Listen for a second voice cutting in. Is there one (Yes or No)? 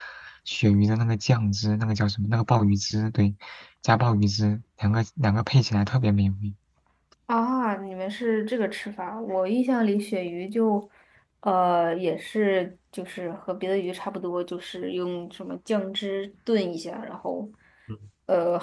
No